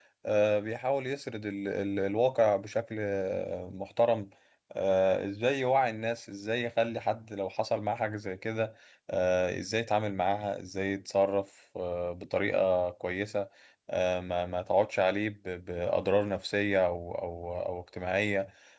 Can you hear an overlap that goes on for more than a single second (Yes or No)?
No